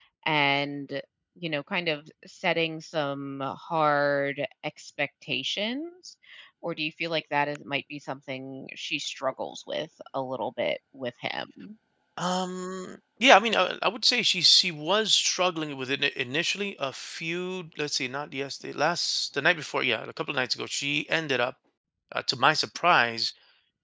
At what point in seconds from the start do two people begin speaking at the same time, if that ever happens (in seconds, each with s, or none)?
none